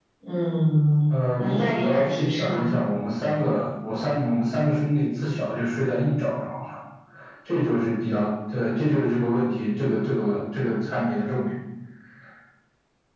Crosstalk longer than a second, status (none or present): present